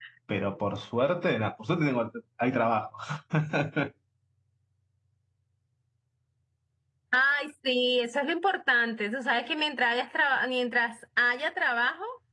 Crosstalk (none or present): none